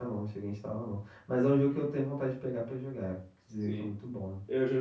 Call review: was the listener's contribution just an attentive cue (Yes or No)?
No